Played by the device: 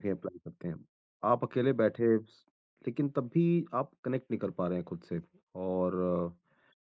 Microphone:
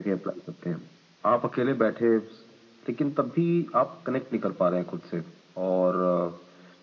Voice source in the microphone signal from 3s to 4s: echo only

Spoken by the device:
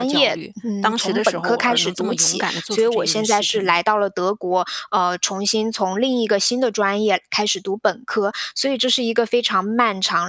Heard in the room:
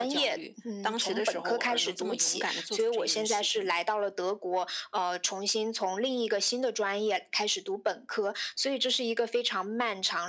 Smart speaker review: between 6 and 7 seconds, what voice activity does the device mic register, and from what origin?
echo only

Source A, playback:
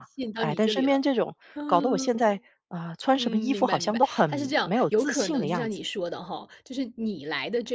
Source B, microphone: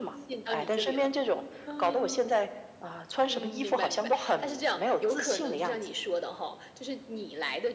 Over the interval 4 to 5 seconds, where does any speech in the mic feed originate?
echo only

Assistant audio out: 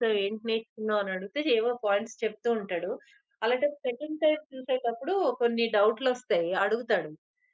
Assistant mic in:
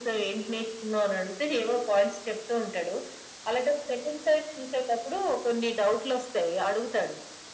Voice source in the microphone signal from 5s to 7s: echo only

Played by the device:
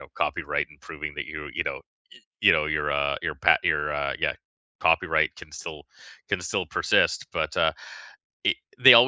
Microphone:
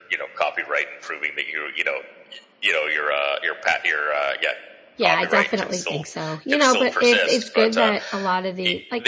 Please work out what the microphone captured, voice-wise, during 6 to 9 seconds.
both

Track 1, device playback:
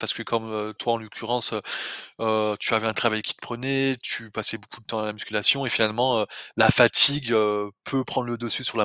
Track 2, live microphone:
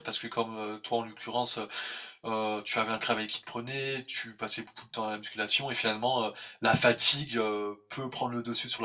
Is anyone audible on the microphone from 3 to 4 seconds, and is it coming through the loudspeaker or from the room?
echo only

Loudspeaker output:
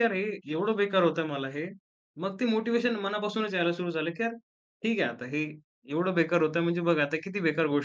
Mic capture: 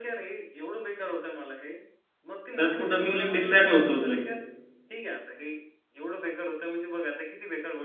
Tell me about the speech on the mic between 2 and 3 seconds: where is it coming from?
both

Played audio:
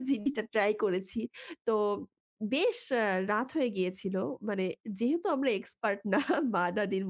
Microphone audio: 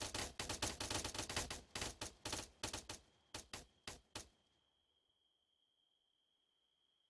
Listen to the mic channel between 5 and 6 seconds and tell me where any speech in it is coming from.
neither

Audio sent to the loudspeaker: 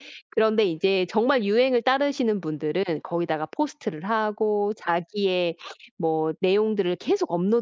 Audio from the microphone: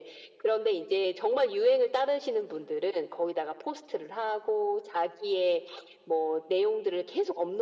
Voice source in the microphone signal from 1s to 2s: echo only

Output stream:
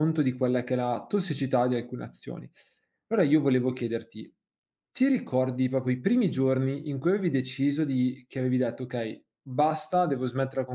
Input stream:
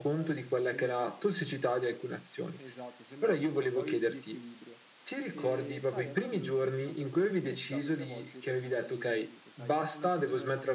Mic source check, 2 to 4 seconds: both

